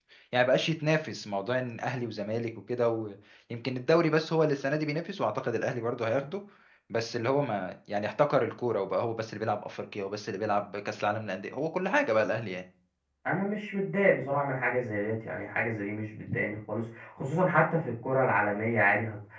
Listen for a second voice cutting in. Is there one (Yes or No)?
No